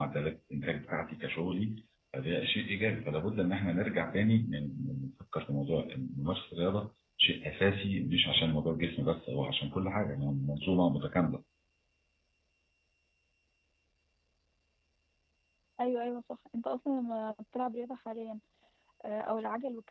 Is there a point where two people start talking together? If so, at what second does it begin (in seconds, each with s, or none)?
none